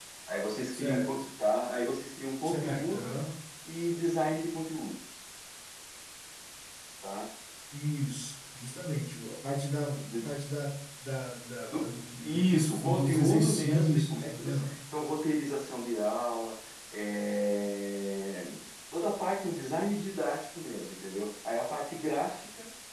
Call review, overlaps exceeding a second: present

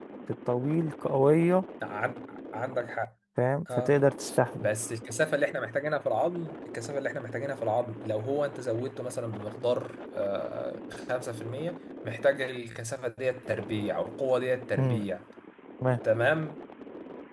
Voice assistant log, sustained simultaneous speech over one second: none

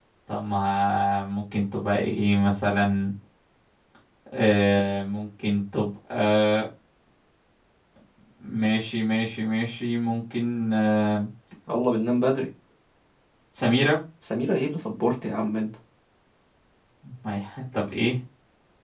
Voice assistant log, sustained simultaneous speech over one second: none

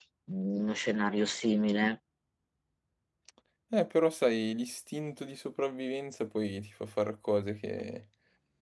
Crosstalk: none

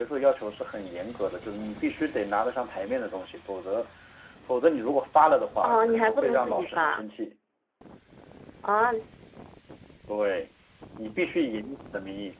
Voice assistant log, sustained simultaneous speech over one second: present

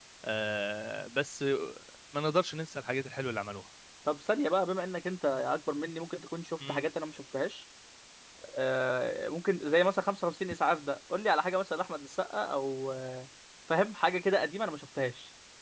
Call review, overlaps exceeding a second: none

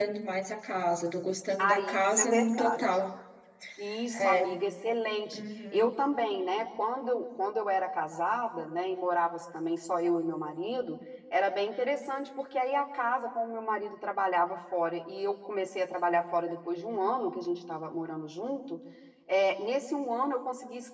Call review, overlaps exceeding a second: present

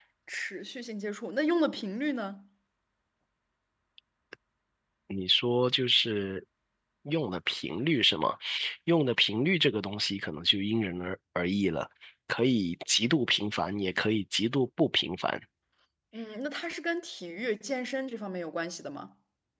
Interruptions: none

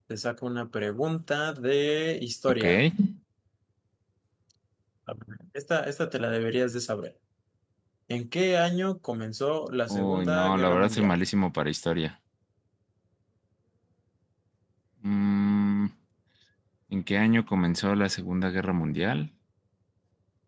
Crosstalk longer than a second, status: present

